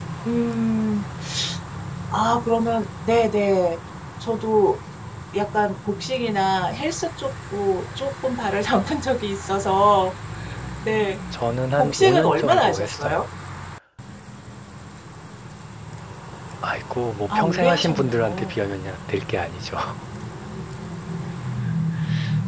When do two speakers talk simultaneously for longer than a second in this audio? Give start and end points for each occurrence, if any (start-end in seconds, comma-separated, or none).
11.8-13.2, 17.3-18.6